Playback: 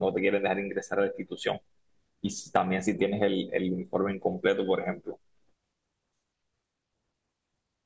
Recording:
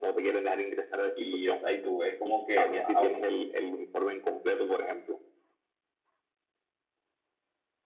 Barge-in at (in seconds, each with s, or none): 1.1 s